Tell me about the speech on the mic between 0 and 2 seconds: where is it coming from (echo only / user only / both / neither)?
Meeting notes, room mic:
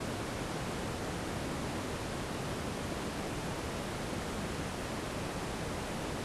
neither